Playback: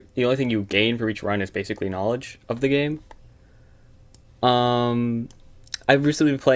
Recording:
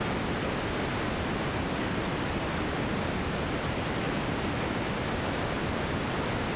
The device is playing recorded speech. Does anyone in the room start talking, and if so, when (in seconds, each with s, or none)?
none